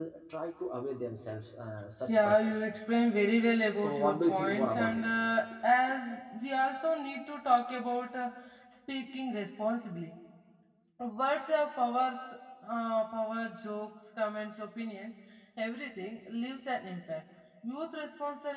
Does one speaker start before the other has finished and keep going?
Yes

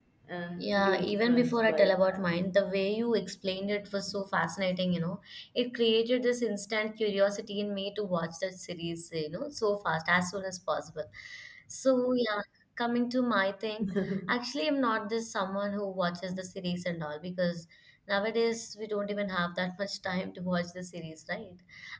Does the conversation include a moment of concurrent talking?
Yes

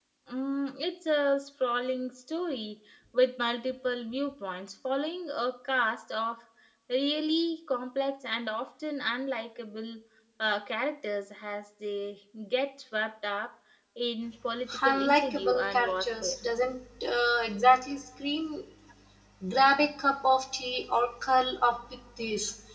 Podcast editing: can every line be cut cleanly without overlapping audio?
No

